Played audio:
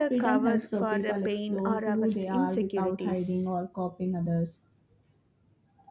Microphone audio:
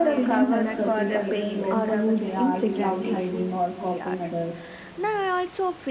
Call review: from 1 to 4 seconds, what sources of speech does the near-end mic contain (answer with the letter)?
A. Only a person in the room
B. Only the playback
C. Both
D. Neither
C